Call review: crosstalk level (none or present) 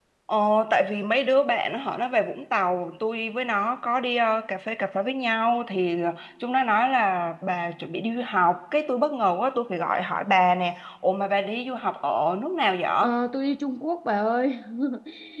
none